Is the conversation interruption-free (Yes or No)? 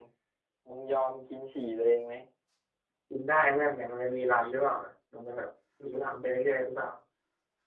Yes